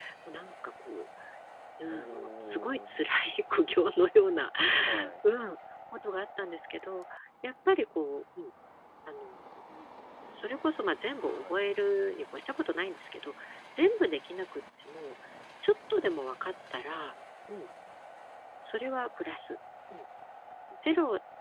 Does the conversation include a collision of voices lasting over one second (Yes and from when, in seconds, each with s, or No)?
Yes, from 1.9 s